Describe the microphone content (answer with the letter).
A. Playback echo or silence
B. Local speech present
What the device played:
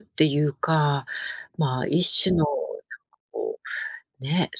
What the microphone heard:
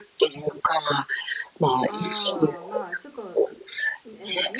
B